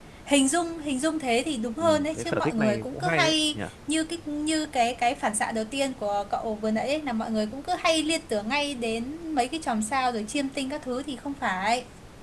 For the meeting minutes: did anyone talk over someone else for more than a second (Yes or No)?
Yes